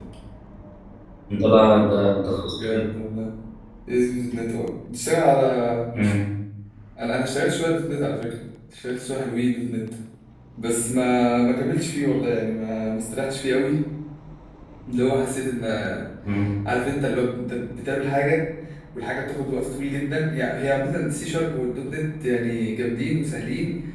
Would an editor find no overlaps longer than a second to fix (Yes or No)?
Yes